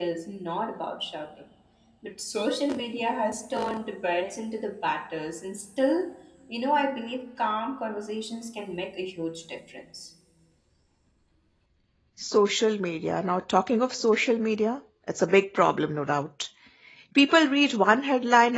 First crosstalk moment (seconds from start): none

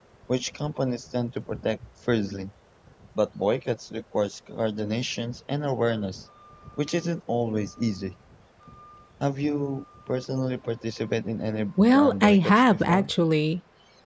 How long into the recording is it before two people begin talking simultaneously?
12 s

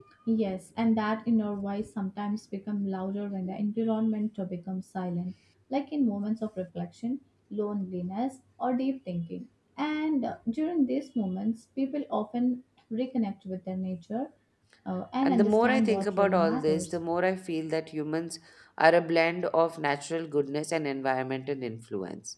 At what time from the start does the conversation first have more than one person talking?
15 s

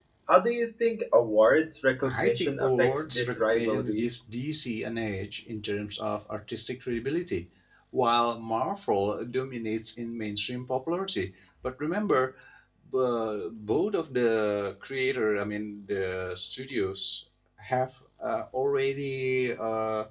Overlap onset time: 2 s

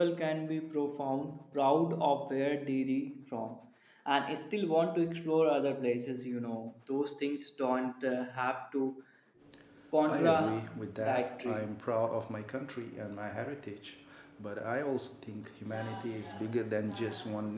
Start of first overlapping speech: 10 s

